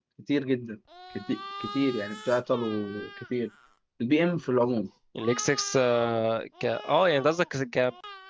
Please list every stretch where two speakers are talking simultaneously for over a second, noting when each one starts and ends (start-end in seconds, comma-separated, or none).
none